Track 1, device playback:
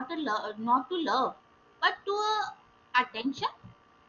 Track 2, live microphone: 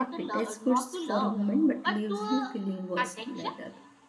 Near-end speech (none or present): present